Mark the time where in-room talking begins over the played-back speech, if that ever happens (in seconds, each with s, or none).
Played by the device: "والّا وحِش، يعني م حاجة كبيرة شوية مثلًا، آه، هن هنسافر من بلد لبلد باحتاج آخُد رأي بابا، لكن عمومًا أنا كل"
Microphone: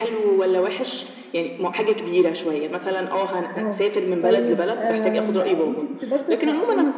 3.5 s